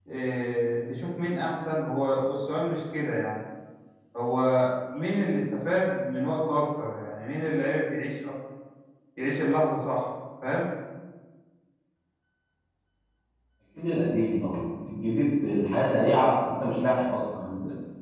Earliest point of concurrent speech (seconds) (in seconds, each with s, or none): none